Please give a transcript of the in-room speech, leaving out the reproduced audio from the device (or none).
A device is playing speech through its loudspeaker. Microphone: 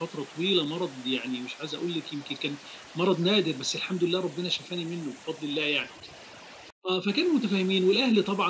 none